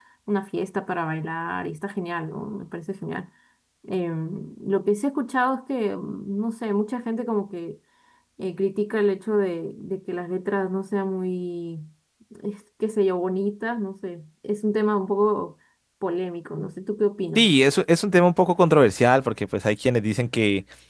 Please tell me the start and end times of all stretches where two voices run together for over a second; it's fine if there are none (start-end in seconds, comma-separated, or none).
none